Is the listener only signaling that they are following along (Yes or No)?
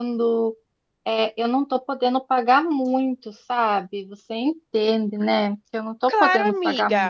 No